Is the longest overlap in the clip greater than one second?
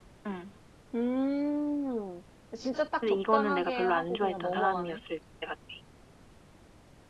Yes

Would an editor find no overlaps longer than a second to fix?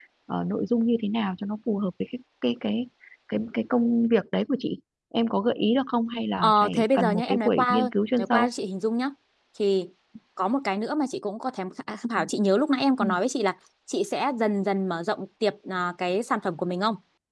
No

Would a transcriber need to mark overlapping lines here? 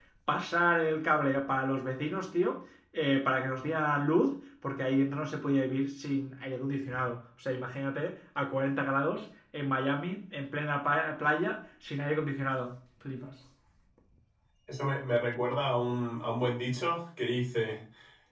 No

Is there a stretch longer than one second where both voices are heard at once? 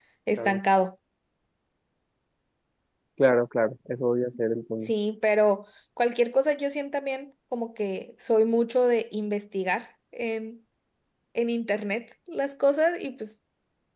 No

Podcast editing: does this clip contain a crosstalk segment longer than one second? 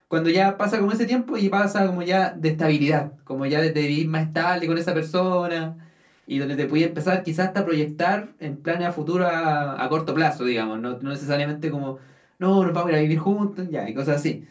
No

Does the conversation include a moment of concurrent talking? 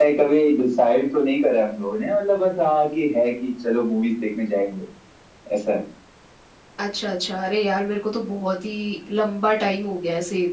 No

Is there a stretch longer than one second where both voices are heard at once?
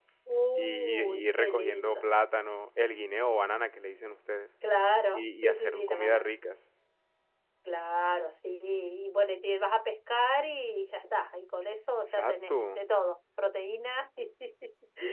Yes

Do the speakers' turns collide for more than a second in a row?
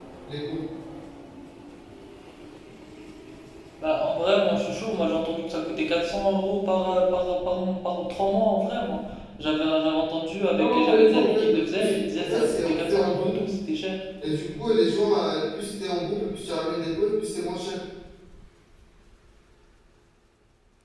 Yes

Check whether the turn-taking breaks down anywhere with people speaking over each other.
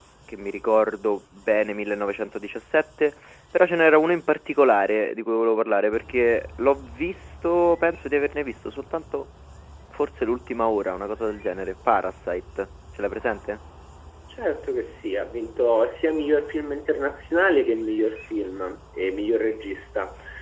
No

